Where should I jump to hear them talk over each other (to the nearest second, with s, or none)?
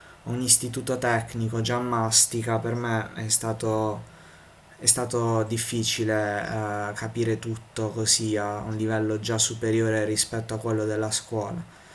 none